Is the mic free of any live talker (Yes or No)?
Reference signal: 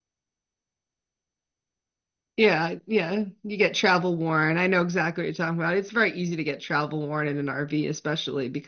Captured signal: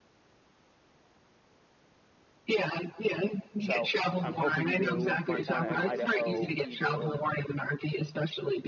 No